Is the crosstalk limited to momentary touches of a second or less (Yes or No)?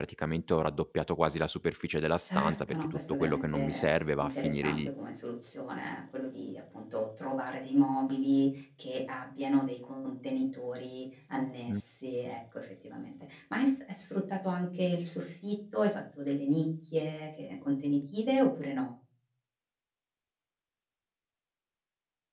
No